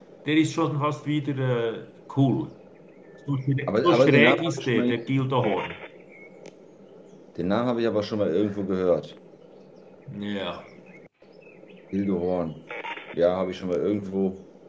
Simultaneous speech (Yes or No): Yes